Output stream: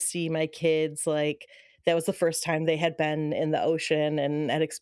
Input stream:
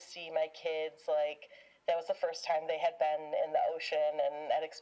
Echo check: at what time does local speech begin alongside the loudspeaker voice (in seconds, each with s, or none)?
none